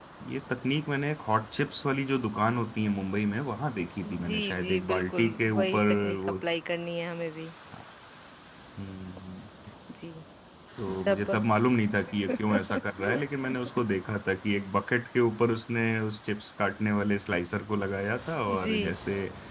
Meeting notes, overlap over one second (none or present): present